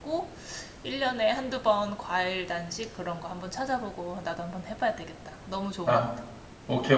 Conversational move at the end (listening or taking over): taking over